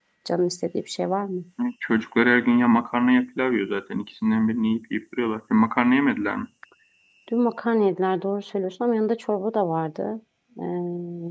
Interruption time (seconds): none

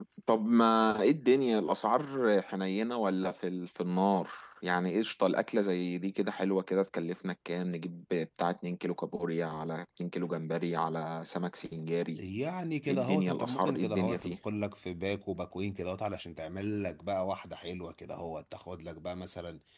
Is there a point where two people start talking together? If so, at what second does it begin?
12.9 s

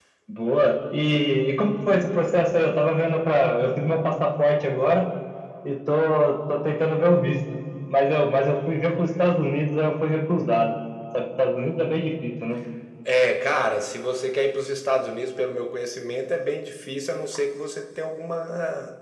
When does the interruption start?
none

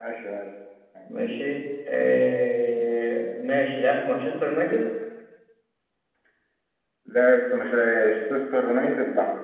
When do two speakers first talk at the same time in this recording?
none

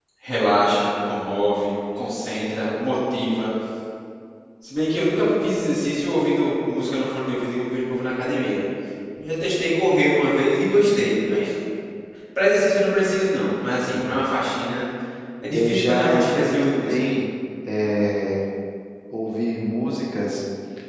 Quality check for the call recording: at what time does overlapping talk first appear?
15.5 s

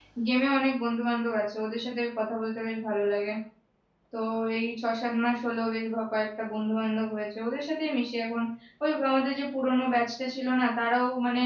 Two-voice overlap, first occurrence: none

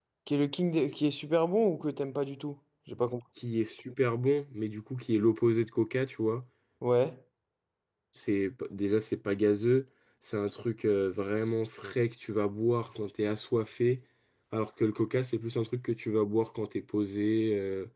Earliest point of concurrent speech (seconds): none

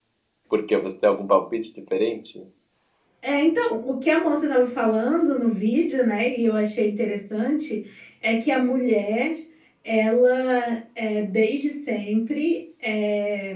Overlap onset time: none

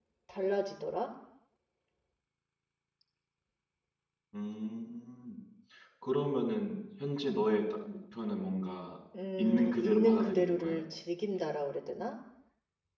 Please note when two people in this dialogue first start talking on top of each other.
9.4 s

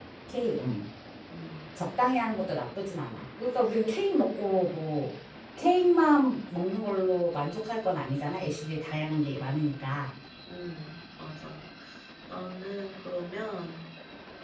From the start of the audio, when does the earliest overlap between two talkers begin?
none

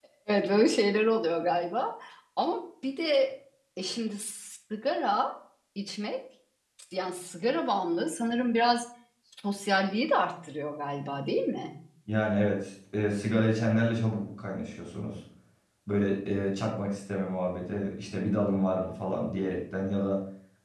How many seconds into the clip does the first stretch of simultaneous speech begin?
none

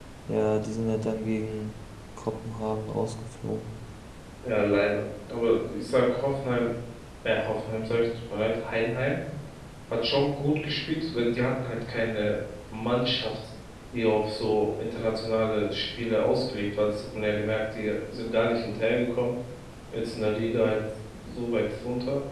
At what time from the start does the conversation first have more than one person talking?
none

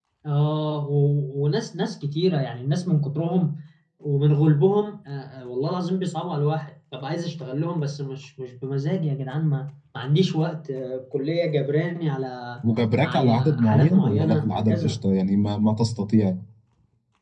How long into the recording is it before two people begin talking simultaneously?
13.0 s

